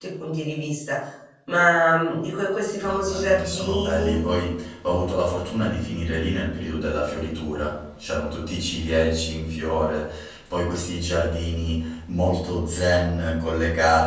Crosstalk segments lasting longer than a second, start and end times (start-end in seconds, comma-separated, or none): 2.8-4.2